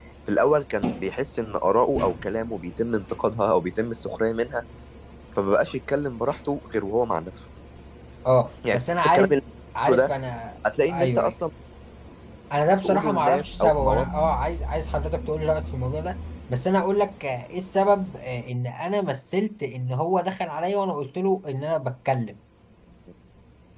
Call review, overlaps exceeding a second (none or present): present